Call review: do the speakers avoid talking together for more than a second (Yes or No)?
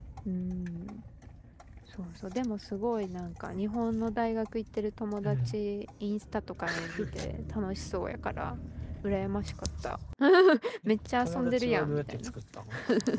No